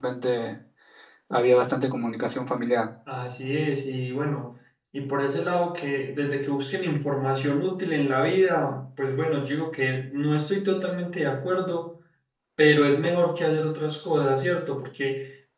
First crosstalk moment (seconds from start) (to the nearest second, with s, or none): none